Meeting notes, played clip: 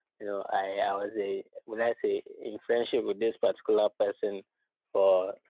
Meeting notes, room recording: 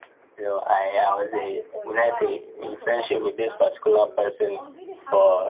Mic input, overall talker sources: both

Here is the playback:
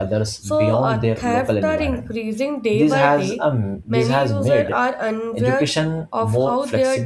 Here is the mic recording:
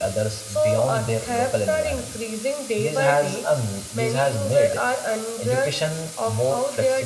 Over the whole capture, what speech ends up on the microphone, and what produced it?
echo only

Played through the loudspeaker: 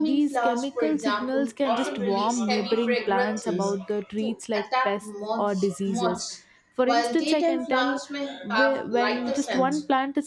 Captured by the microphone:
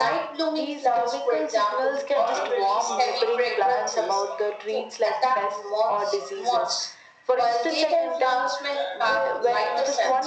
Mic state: echo only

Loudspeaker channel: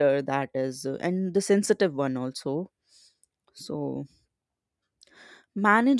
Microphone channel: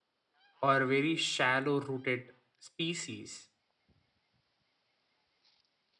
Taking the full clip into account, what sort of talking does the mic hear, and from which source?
user only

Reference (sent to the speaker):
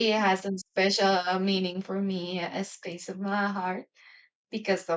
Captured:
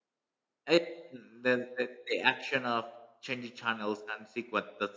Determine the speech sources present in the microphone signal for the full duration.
user only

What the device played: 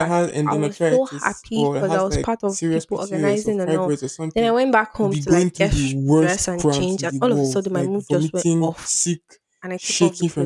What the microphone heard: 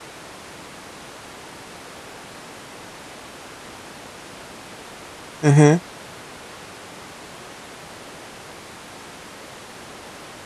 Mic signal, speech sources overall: user only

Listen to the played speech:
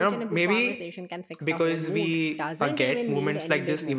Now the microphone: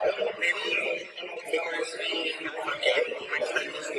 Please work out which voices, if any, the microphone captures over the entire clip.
echo only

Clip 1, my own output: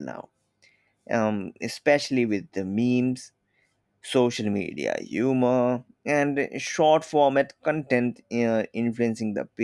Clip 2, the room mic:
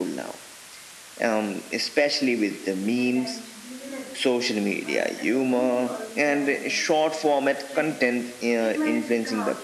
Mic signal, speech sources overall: both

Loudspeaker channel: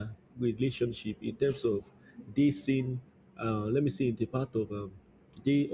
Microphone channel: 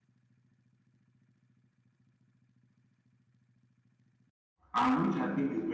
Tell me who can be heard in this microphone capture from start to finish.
user only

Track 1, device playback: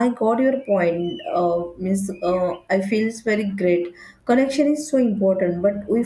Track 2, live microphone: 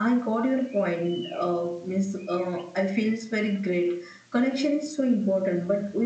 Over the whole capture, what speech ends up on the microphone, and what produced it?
echo only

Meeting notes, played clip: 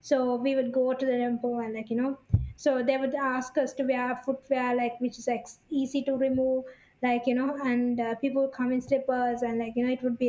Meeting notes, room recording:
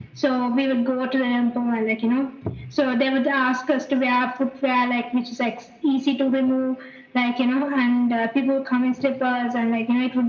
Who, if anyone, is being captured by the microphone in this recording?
echo only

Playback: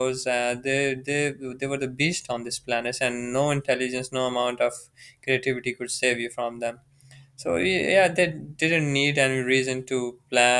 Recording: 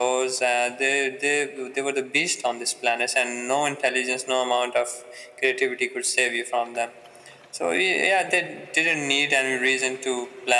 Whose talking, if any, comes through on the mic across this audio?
echo only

